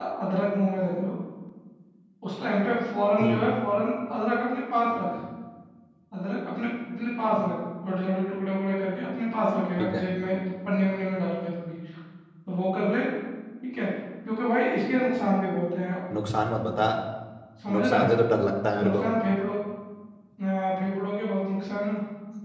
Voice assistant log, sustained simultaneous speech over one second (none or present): none